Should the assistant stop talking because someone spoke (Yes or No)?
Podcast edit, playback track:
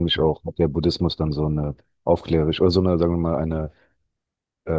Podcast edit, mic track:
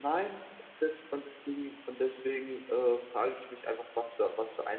Yes